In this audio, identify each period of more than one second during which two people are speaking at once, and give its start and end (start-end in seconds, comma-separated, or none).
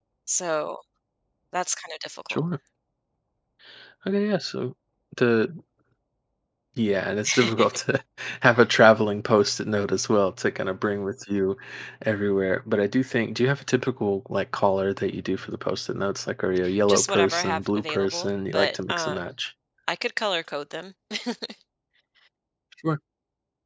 16.9-19.3